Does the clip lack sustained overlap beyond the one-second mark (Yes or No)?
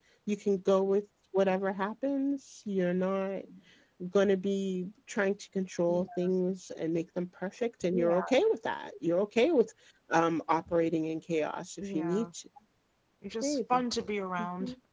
Yes